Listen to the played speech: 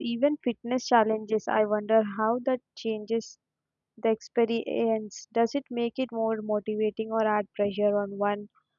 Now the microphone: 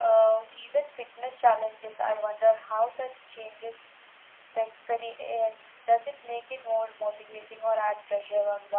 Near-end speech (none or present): none